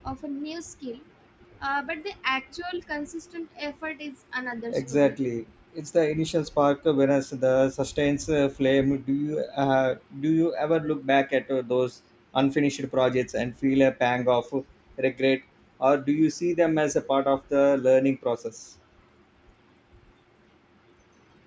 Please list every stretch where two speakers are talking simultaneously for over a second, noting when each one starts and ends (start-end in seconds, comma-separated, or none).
none